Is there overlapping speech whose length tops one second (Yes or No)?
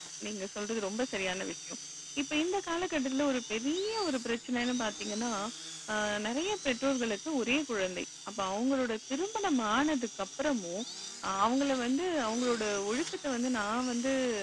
No